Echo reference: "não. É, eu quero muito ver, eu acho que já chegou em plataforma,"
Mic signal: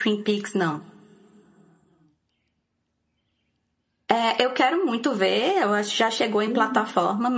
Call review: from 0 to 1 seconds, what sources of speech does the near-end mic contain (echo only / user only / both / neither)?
echo only